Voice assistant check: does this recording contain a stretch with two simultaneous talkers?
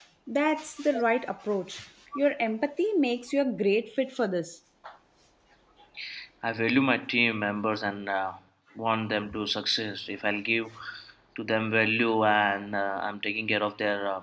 No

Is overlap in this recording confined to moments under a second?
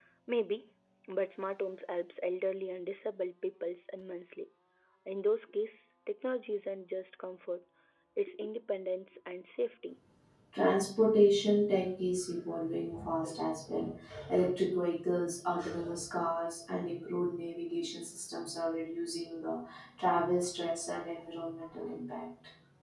Yes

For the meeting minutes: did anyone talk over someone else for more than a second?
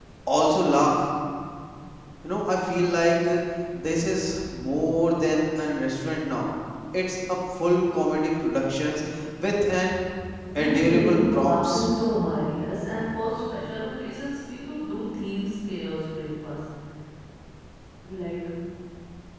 Yes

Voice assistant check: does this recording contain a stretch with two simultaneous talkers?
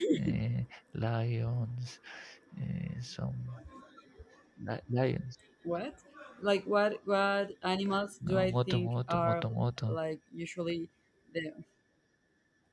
Yes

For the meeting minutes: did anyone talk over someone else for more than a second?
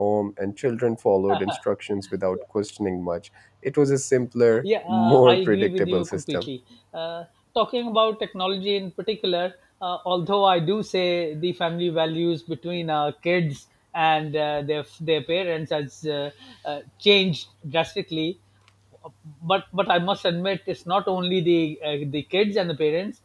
Yes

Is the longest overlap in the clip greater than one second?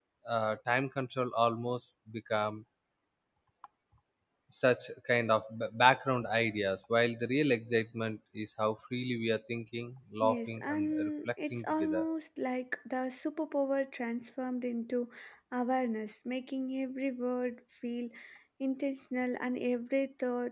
Yes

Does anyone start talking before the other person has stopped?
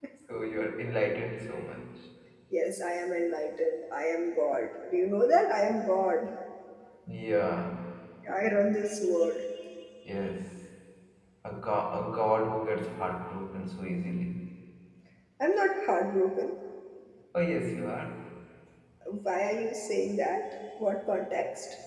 No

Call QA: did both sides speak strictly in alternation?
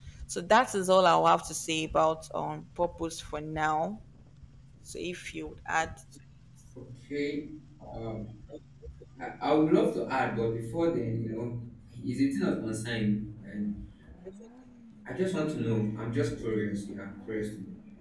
Yes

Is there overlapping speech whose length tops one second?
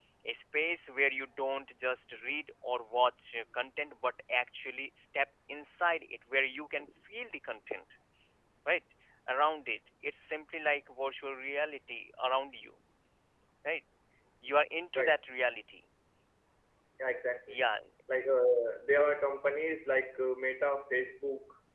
No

